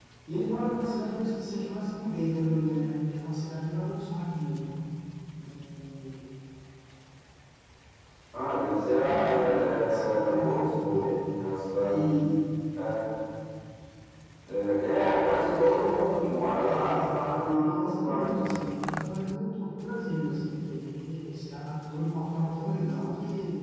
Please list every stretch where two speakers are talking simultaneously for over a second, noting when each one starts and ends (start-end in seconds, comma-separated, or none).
9.0-11.1, 16.6-18.5